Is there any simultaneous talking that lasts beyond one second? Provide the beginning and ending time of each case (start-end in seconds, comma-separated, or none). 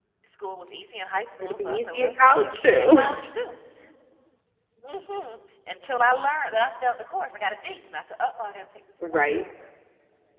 1.4-3.1